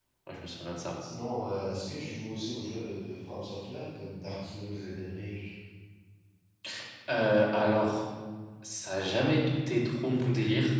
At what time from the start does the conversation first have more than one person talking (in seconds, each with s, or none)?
none